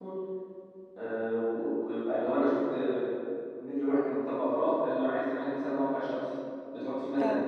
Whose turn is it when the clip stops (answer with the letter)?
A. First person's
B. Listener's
A